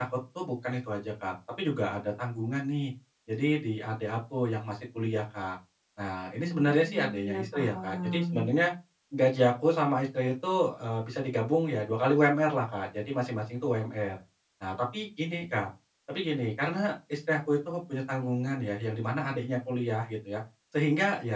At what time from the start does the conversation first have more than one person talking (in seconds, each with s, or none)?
6.4 s